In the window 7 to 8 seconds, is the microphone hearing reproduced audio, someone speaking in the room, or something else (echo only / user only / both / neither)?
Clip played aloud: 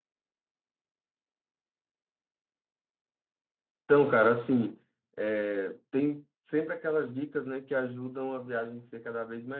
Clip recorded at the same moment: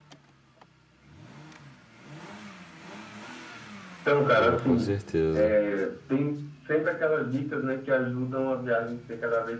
echo only